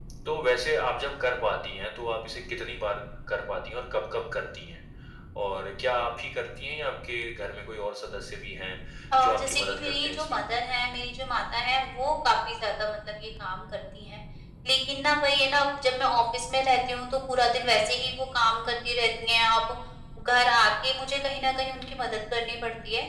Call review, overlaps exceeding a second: present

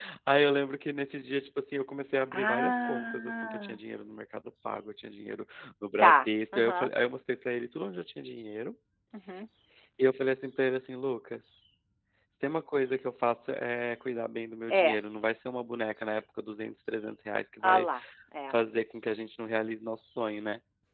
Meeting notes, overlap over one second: present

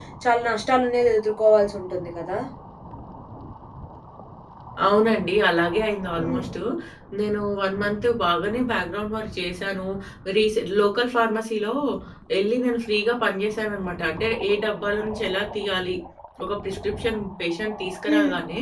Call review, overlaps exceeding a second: none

